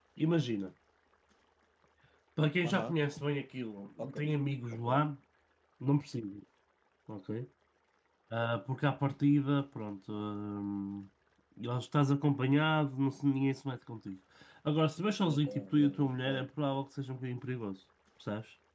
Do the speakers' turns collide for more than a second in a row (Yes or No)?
Yes